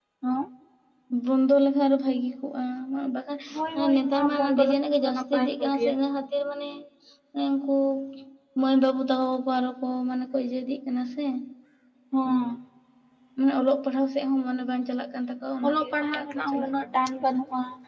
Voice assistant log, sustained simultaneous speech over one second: present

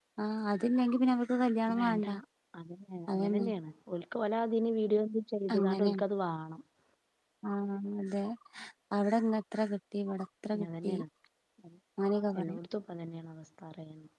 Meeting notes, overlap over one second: none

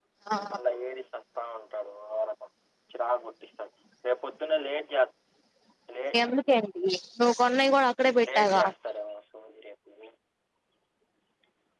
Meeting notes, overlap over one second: none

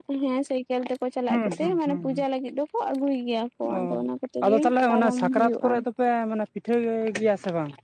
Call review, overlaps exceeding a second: present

